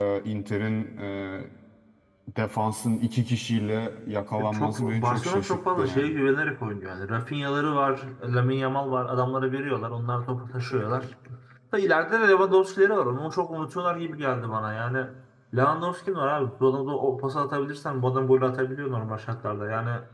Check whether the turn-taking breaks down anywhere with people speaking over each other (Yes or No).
Yes